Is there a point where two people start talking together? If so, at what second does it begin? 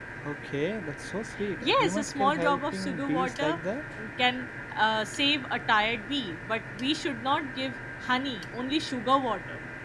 2 s

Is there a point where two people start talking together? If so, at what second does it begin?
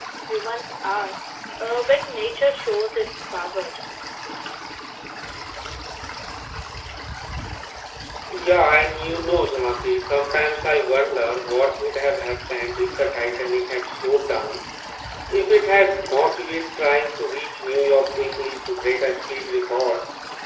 none

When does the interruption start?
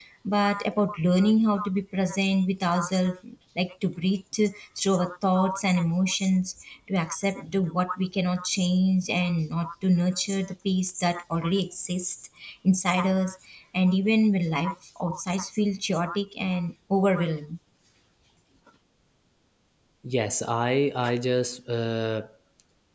none

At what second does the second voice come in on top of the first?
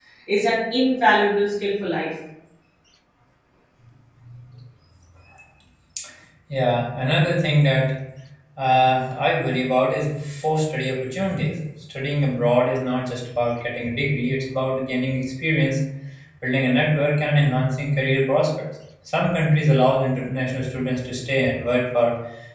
none

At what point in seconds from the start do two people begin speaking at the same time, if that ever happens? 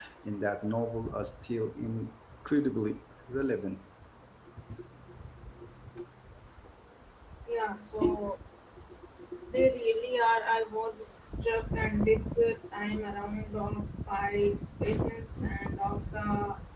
none

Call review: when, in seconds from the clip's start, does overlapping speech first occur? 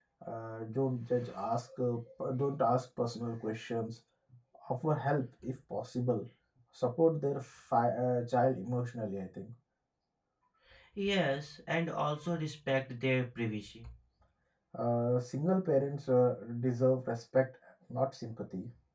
none

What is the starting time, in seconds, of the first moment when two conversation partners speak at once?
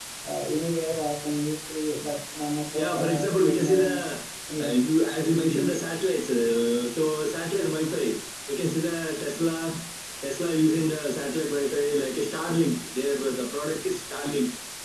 3 s

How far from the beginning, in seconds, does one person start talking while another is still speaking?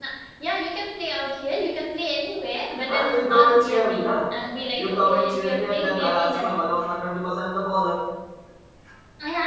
3 s

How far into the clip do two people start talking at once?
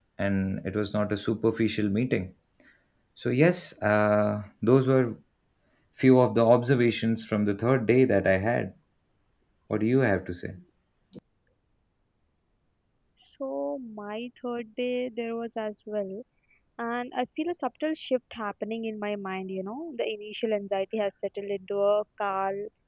none

